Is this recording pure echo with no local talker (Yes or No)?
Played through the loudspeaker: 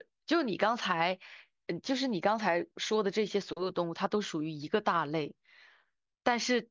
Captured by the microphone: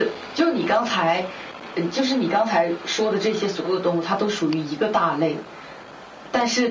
Yes